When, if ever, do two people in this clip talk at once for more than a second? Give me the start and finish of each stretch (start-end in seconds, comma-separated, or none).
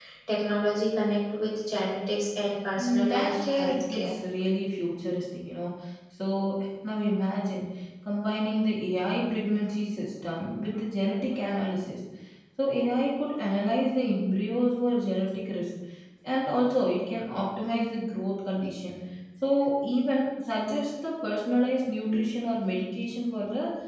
2.8-4.2